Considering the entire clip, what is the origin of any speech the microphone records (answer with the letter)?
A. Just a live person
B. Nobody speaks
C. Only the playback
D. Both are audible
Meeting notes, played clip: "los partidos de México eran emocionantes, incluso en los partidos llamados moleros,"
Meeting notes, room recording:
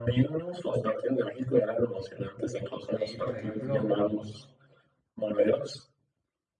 D